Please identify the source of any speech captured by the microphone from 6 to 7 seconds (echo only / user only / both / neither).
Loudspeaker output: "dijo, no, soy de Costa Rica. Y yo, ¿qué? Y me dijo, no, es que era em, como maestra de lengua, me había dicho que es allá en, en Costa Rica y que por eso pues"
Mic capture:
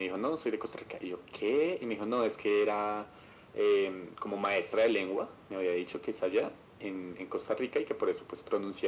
echo only